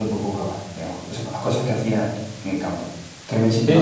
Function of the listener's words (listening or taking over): taking over